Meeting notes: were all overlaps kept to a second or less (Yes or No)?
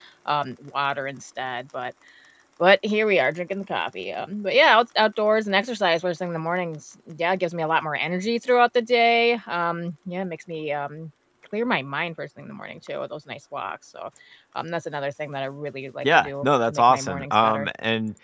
No